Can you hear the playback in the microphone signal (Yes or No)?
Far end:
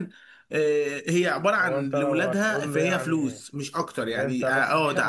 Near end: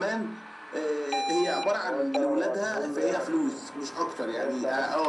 Yes